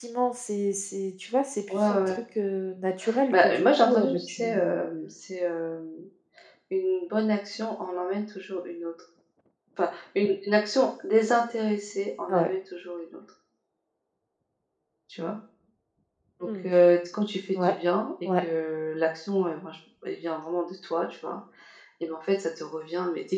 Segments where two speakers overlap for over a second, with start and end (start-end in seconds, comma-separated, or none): 3.3-4.8